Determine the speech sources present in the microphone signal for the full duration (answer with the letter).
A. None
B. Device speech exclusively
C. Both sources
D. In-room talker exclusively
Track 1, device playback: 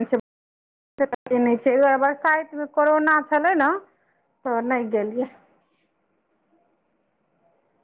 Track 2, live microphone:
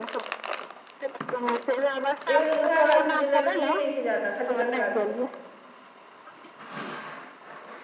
C